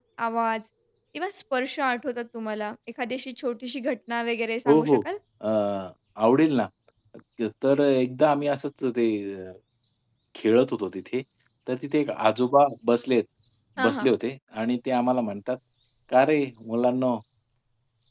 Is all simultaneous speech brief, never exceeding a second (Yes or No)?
Yes